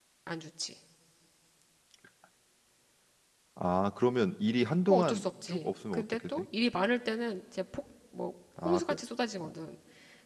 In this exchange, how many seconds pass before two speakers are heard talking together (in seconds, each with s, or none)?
4.9 s